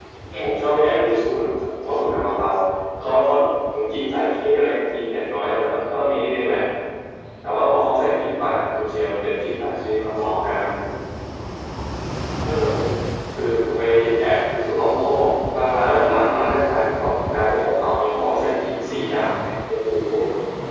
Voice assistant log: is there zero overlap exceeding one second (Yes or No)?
Yes